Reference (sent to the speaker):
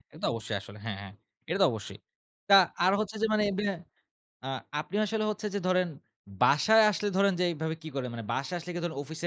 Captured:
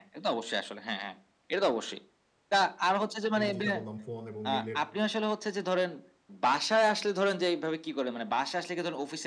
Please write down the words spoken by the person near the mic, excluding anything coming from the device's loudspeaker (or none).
এই যেটা বললাম ফোন এবং মেইলের